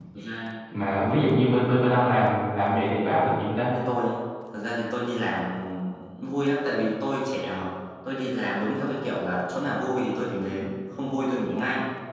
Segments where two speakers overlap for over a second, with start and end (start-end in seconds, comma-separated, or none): none